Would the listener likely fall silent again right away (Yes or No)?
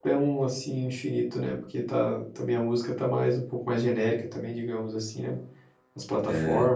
No